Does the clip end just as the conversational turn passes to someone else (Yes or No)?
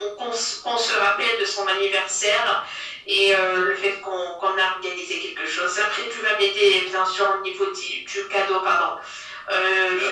Yes